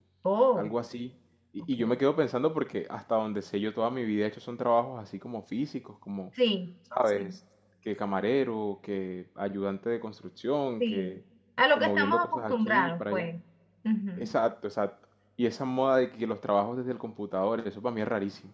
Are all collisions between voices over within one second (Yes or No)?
No